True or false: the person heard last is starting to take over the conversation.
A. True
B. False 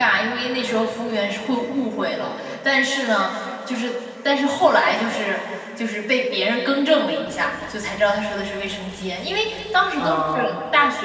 B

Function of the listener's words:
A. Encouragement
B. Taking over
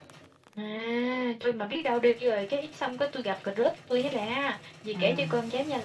A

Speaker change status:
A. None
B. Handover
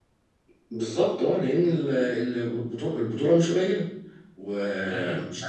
A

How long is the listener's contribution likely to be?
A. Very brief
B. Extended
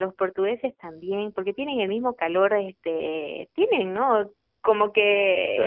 A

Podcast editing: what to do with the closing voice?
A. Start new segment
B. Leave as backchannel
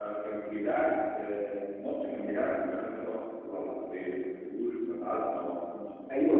A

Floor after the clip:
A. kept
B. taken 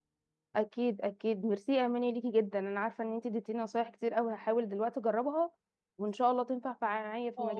B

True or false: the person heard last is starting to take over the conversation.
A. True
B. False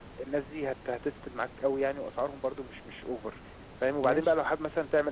B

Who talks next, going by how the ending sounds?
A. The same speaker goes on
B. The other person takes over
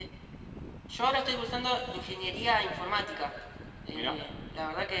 A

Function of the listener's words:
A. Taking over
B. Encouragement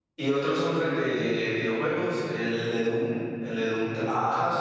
A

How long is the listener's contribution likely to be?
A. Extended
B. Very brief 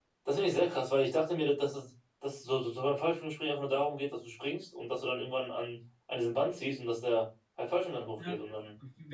A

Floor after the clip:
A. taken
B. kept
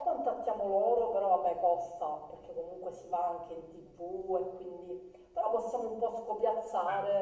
B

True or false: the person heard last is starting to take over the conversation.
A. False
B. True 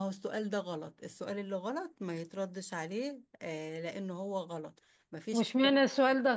B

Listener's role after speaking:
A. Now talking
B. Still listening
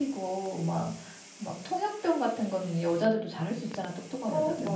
B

